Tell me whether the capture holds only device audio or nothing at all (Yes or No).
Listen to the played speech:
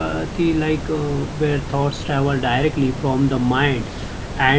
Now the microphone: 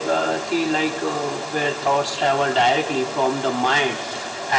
Yes